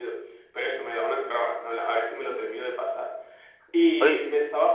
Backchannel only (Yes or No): Yes